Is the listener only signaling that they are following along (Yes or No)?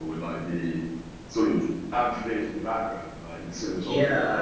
No